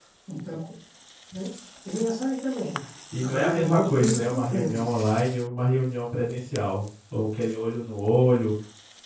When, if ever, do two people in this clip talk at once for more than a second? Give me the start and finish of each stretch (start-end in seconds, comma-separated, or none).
3.2-4.8